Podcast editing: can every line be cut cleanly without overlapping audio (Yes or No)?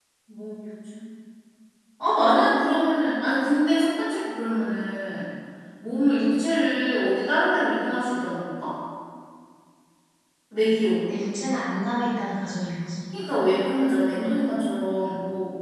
Yes